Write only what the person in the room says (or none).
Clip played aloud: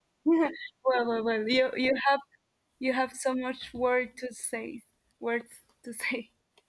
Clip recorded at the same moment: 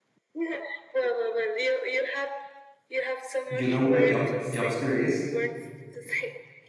you know what a jump jump scare is